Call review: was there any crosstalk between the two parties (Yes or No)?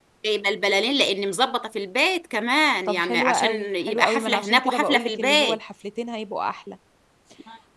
Yes